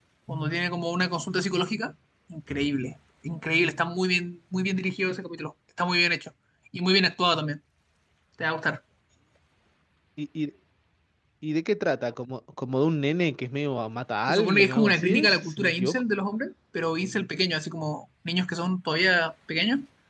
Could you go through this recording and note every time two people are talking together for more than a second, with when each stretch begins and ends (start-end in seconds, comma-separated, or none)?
14.3-16.0